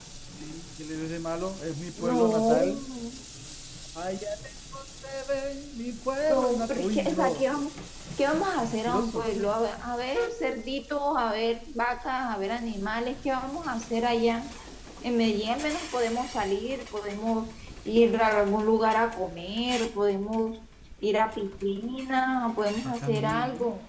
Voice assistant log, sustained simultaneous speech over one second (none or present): present